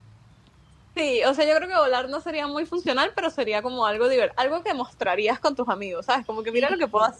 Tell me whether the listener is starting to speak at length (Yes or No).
Yes